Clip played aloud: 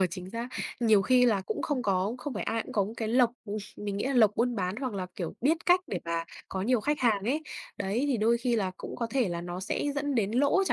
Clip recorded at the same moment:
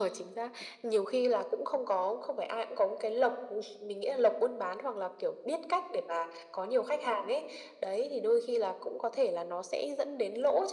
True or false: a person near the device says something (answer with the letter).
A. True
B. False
B